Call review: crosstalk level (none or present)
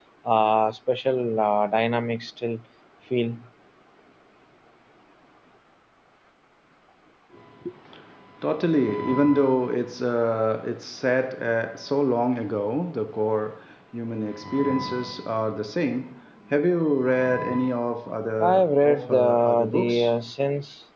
present